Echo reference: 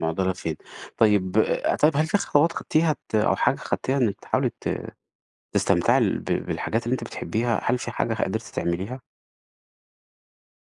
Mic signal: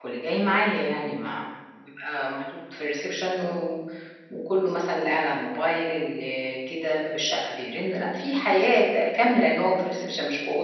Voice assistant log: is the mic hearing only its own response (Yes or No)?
No